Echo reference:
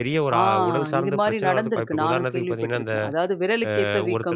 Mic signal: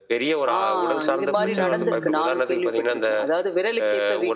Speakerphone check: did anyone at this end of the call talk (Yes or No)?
Yes